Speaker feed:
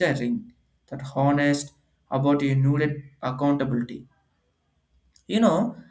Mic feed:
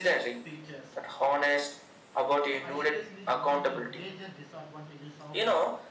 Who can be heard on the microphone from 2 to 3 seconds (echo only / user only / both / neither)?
both